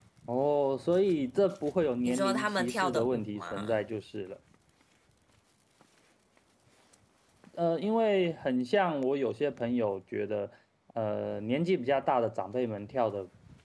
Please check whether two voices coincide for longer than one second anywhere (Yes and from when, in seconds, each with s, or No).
Yes, from 2.0 s